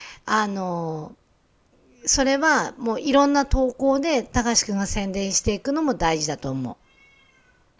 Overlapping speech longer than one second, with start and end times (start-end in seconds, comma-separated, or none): none